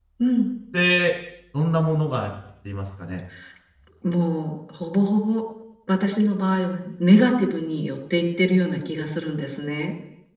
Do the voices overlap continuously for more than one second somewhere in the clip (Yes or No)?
No